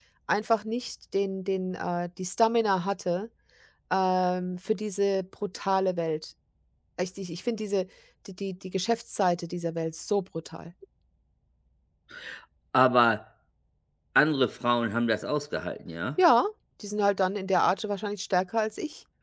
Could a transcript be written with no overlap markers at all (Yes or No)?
Yes